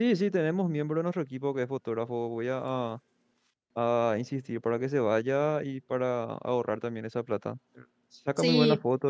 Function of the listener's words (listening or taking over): listening